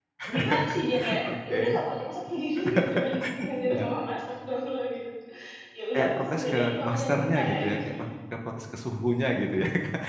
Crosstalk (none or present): present